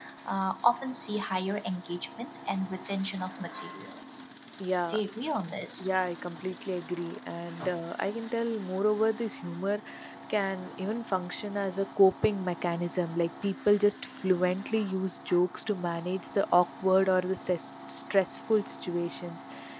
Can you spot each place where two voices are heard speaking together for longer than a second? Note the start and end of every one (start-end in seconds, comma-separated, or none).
none